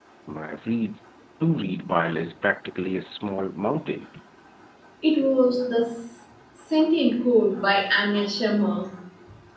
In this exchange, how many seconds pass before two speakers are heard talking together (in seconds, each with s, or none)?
none